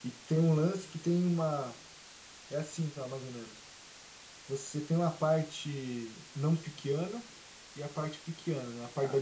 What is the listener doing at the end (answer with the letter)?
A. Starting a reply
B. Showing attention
A